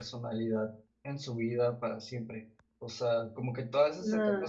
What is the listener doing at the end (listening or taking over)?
listening